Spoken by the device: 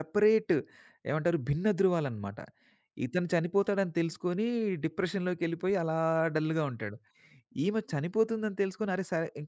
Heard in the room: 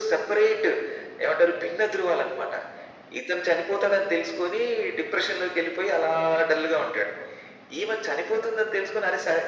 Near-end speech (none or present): none